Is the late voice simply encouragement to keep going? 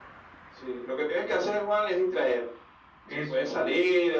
Yes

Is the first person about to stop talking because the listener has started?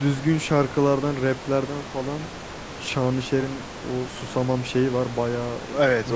Yes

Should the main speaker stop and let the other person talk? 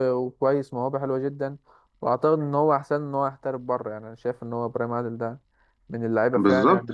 Yes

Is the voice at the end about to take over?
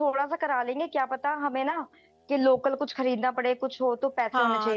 Yes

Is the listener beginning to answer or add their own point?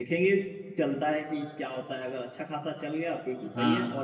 No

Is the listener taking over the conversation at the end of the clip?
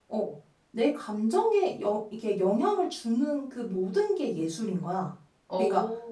No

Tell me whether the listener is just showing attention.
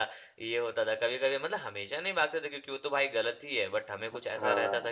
Yes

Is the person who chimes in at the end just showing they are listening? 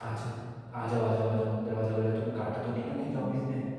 No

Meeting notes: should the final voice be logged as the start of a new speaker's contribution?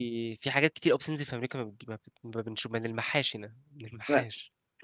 Yes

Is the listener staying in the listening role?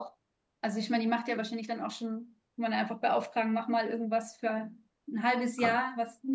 Yes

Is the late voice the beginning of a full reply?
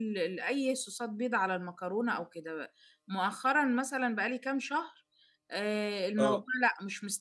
No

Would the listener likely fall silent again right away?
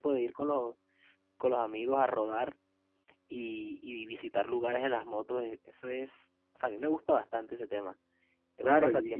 No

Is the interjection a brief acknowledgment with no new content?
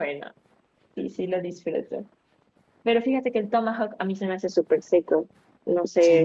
No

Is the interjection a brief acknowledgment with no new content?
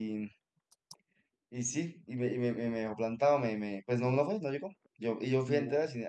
Yes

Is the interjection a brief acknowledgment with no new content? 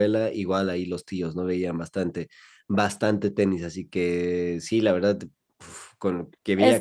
No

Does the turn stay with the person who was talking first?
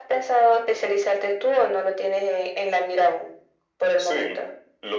No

